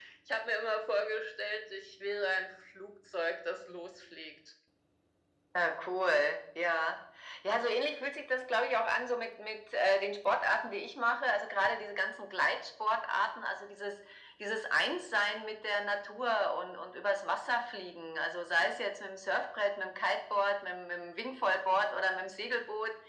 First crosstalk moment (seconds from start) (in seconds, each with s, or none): none